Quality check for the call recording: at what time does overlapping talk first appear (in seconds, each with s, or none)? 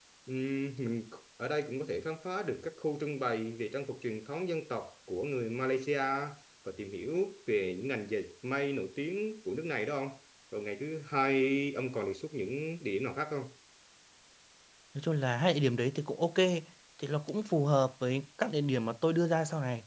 none